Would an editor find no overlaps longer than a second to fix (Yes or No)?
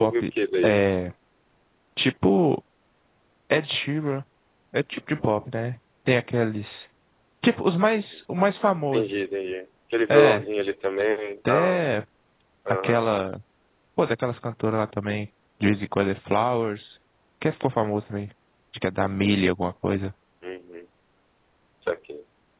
Yes